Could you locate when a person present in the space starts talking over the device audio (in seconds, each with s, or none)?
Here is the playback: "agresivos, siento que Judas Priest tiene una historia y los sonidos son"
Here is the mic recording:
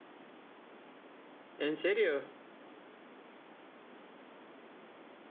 1.6 s